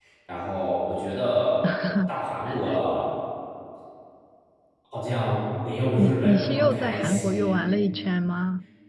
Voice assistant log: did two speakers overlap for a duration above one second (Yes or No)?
Yes